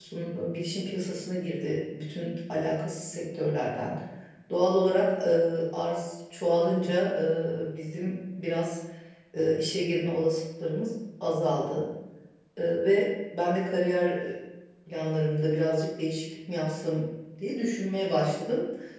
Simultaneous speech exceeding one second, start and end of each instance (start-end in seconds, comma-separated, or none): none